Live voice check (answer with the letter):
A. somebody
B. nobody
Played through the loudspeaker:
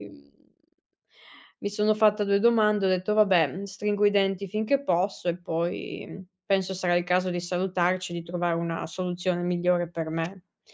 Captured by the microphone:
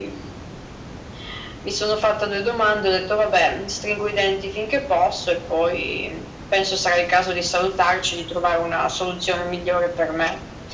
B